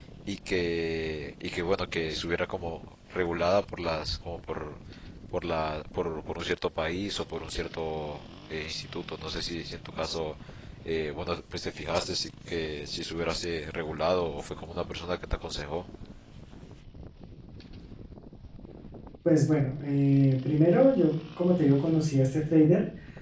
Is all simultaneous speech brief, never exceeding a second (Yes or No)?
Yes